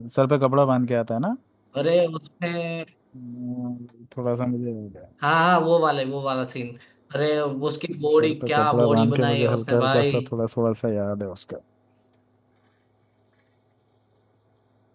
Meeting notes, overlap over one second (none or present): present